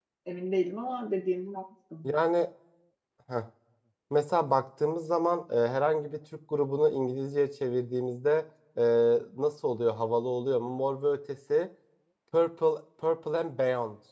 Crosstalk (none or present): none